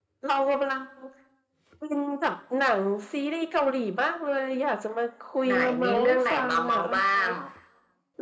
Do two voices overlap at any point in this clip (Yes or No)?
Yes